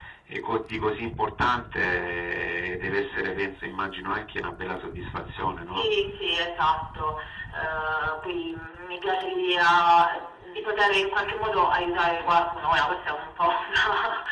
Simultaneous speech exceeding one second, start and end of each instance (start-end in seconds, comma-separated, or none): none